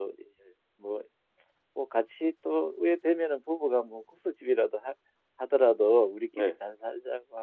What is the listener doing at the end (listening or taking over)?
listening